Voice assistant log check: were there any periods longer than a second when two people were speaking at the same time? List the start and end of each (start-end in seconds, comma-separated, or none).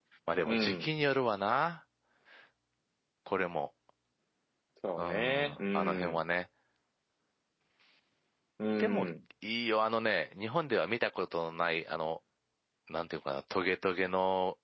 5.0-6.2